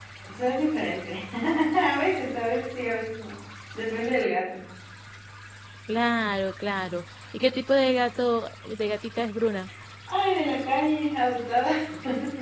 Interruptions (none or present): none